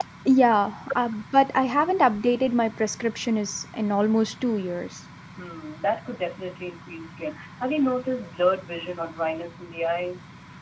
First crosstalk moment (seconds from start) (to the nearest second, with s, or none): none